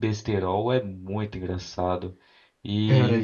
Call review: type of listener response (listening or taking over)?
taking over